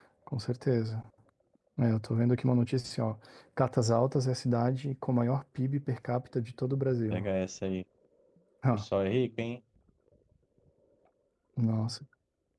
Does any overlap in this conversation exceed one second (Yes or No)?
No